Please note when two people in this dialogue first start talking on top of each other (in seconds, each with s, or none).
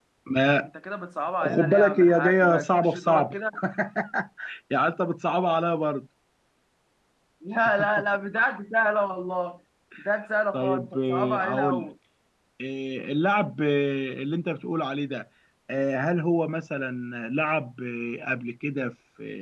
1.4 s